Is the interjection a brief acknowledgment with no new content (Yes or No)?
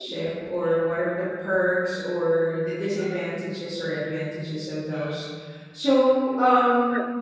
Yes